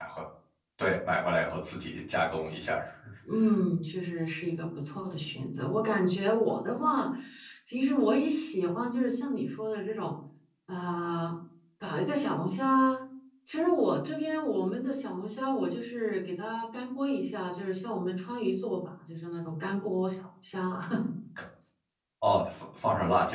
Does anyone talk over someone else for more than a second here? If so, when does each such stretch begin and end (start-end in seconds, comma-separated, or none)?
none